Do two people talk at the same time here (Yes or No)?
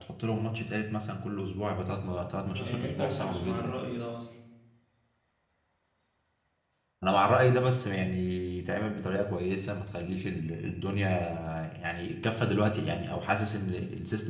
Yes